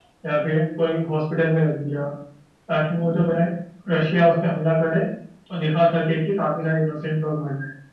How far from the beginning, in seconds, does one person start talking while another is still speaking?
none

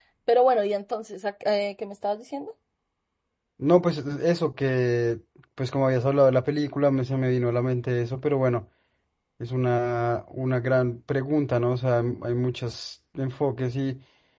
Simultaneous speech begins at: none

